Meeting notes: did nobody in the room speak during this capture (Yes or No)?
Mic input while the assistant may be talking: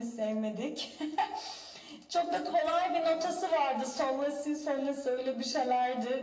Yes